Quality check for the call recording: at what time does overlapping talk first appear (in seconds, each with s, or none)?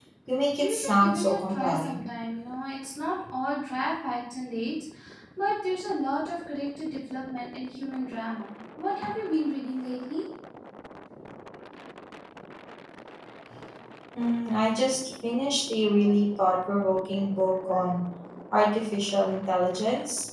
0.6 s